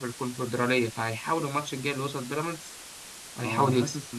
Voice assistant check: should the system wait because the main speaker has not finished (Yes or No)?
No